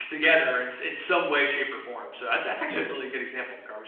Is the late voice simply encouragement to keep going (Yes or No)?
Yes